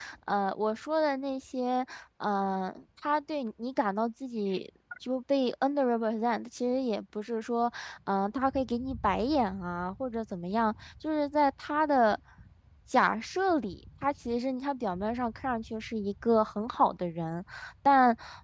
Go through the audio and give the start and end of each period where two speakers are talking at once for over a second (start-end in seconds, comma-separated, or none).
none